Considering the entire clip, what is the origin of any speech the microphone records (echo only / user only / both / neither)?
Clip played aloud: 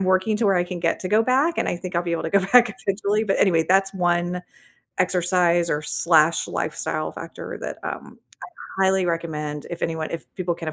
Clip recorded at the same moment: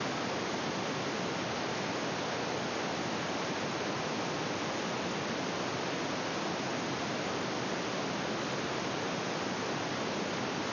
neither